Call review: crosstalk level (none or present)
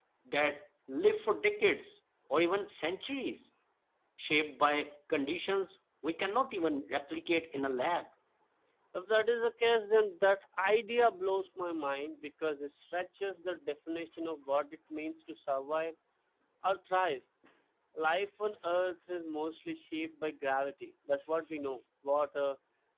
none